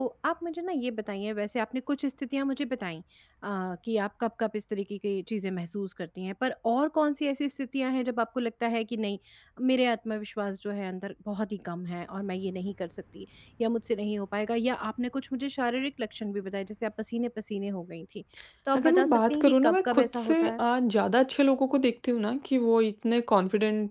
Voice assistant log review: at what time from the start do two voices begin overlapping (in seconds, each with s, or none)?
18.8 s